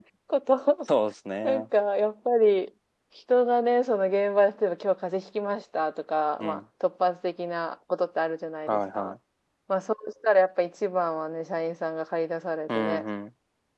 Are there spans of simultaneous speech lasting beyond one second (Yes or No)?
No